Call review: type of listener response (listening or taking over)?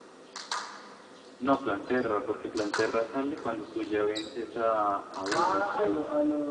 taking over